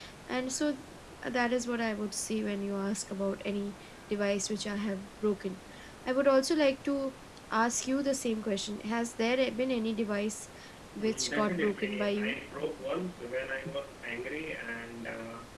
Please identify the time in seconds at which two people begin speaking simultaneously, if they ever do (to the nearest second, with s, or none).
11 s